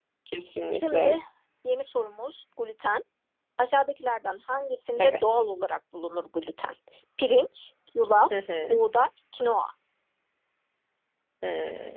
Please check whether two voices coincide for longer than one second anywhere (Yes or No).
No